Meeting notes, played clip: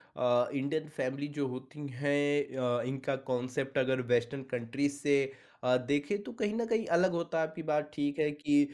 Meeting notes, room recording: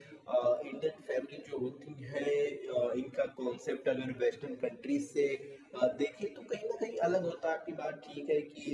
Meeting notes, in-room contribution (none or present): none